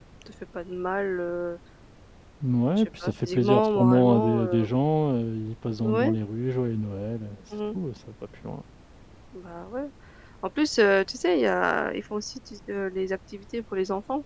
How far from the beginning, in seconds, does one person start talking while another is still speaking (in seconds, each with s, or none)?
2.8 s